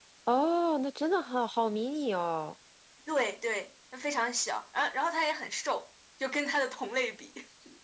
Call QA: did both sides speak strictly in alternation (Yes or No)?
Yes